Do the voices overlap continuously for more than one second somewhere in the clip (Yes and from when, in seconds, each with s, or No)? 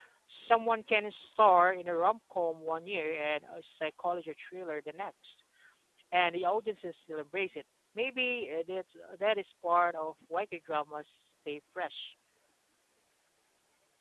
No